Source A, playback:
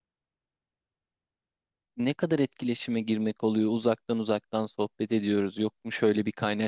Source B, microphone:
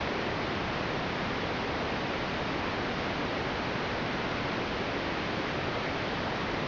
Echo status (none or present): none